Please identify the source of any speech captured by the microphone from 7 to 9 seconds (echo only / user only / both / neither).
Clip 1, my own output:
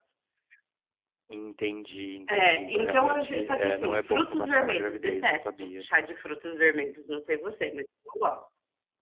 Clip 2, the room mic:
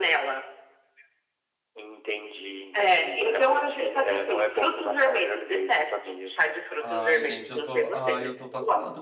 both